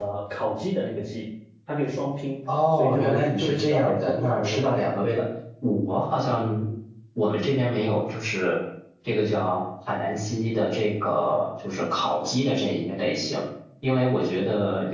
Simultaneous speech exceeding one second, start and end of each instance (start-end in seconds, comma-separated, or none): 2.7-4.8